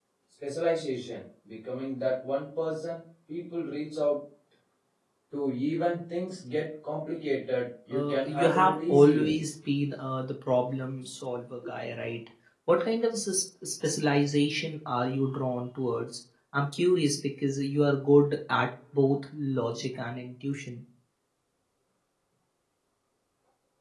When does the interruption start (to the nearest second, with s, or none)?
8 s